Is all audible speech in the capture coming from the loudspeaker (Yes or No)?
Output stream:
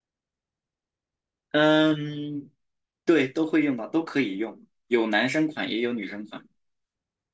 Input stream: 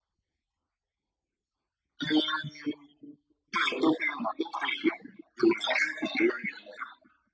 Yes